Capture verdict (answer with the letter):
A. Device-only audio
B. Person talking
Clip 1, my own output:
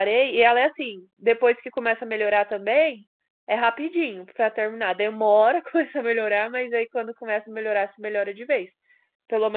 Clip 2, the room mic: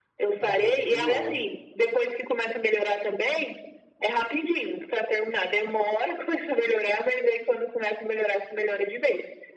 B